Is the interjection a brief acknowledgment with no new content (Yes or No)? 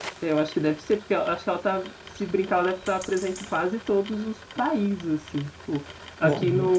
Yes